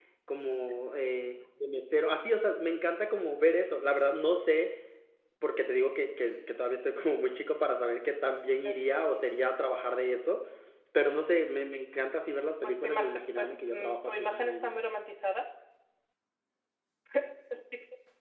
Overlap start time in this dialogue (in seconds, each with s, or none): 12.6 s